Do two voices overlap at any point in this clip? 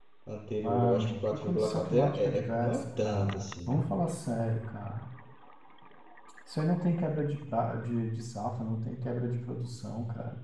Yes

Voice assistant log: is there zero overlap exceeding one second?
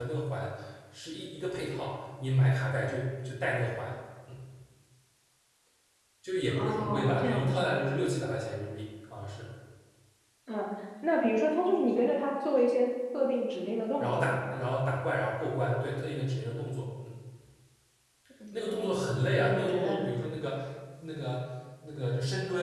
No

